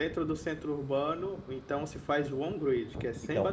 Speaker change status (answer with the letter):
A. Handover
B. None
A